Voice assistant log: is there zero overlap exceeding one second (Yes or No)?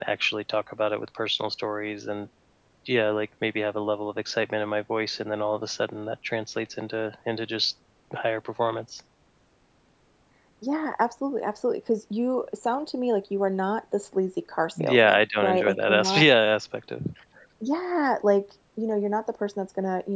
No